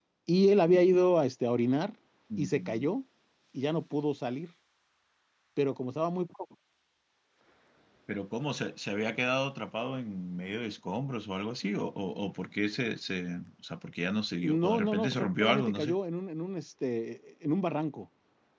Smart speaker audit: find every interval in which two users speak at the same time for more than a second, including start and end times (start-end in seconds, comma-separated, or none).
14.4-16.0